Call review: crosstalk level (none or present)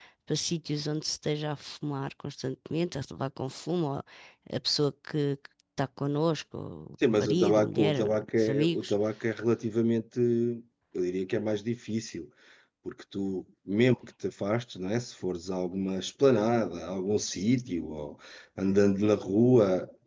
present